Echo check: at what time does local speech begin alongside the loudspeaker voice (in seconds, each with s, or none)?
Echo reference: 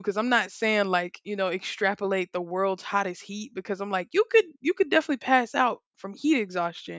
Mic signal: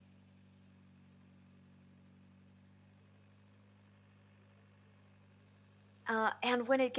6.1 s